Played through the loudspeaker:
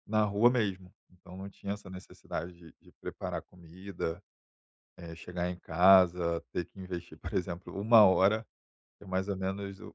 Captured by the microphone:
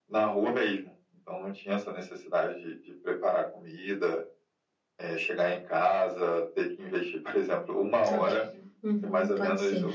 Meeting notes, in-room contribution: present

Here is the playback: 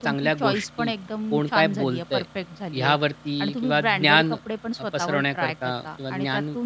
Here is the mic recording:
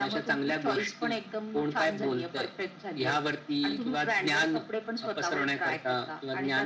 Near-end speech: none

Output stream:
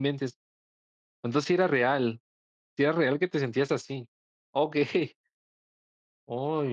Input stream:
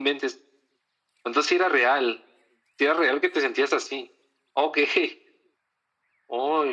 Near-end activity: none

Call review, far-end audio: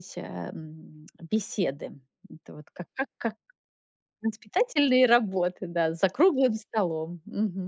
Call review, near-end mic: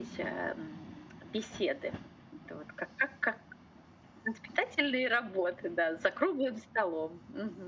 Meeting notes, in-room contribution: none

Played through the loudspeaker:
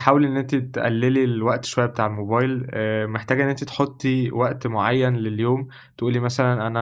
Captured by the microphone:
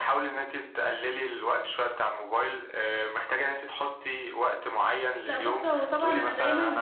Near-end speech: present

